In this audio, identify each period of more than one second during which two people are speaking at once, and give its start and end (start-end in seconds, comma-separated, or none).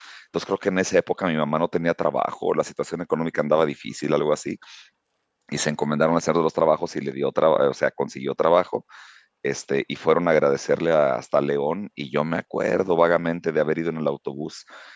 none